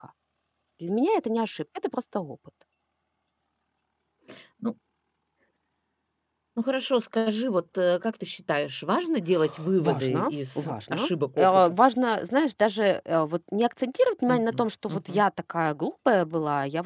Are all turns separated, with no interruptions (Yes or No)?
No